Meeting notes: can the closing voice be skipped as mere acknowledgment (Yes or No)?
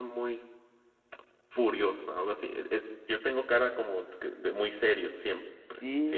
No